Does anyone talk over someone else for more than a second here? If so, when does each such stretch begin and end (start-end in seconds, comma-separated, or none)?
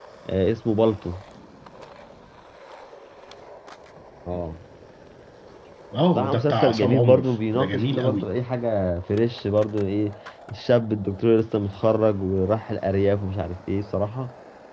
6.2-8.2